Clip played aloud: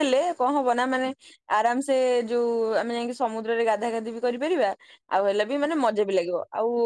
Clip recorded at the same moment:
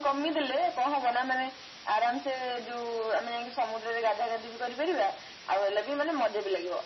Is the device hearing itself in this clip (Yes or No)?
Yes